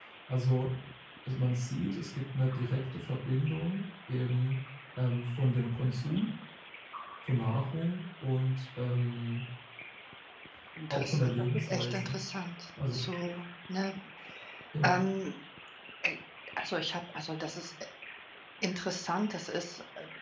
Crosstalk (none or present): present